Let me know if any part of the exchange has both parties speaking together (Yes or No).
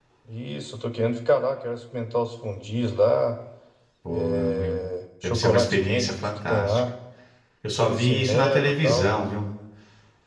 Yes